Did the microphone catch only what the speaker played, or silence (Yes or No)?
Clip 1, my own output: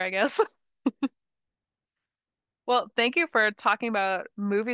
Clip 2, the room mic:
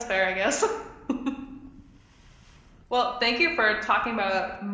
Yes